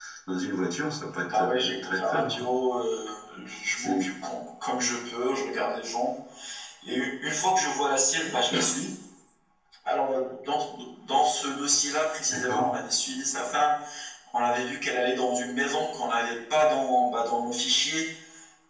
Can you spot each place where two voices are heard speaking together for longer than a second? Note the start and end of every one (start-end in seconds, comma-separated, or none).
1.2-2.5